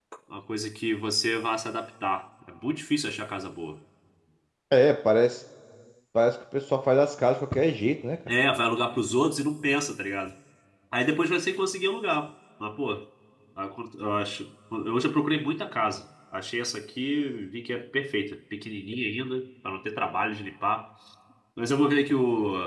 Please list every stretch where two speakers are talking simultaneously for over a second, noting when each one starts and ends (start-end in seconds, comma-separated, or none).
none